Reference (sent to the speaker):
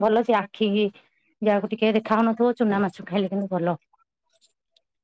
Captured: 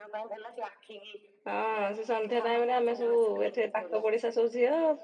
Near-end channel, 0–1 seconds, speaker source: echo only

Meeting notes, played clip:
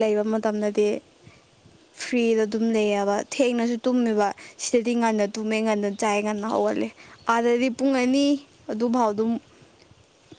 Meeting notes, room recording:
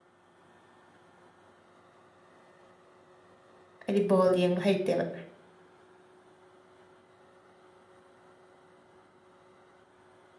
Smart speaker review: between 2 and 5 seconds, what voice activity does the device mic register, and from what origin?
user only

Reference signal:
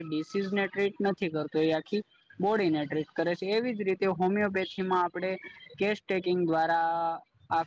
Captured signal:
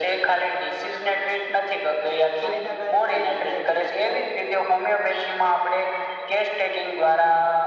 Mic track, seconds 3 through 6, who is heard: both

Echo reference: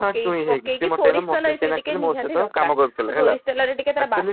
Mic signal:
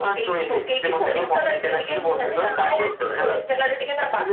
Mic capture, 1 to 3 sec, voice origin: both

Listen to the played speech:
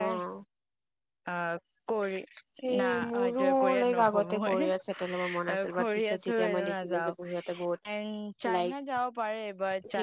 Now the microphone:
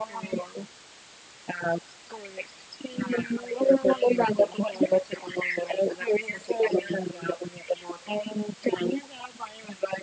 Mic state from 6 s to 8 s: echo only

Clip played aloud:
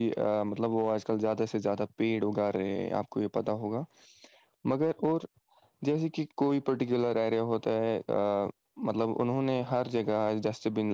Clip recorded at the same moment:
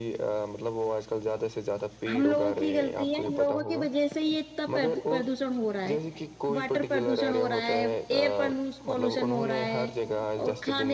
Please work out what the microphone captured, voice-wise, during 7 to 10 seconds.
both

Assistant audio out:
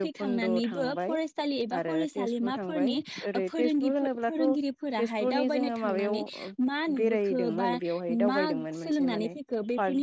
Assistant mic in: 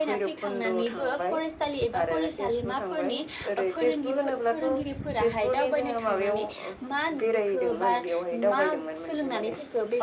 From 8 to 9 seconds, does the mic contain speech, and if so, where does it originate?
echo only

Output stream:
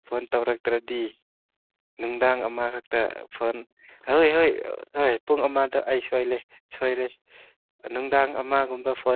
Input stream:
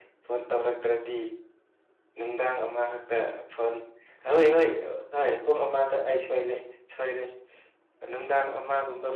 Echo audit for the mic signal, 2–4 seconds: echo only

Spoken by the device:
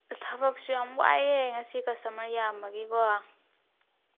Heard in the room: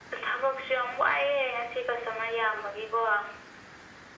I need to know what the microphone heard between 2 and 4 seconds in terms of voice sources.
echo only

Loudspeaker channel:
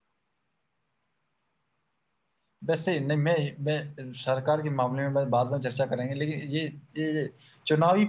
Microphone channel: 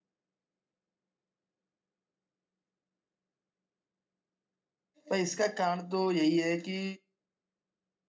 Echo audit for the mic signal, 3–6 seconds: user only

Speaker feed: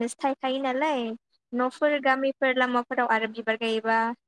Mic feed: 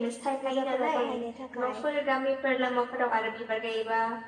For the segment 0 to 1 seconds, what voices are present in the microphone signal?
both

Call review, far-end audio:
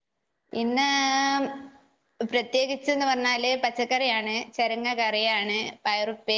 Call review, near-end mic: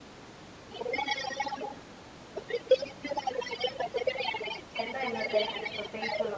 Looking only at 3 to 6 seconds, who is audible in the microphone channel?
both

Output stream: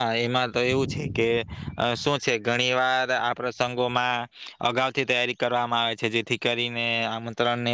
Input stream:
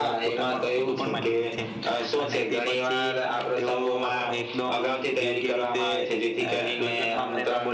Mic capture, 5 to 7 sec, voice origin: both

